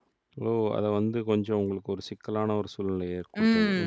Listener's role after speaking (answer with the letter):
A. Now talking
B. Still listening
A